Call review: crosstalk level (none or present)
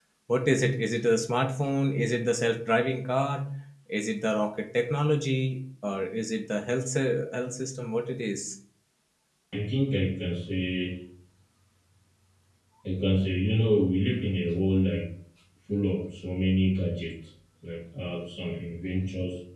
none